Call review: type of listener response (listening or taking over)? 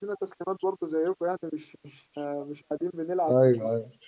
taking over